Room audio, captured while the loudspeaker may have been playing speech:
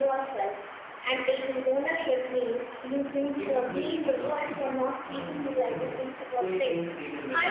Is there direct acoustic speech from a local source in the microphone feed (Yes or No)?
Yes